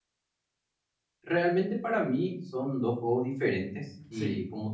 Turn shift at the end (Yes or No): No